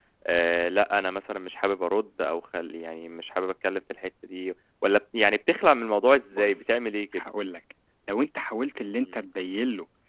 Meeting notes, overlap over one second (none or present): none